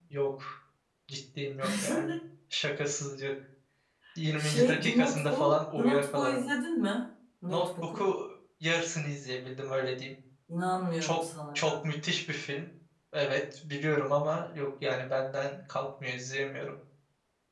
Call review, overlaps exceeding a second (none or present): present